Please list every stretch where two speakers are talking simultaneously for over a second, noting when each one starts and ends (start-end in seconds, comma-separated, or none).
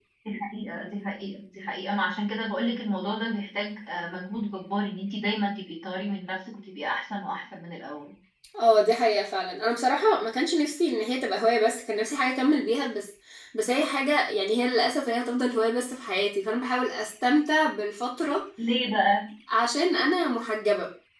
none